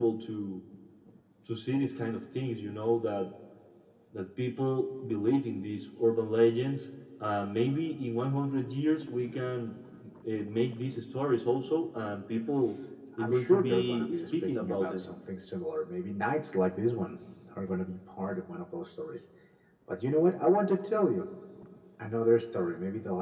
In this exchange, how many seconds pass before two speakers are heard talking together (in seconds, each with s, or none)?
13.1 s